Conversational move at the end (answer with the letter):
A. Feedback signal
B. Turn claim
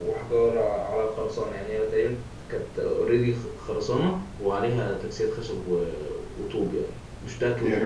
B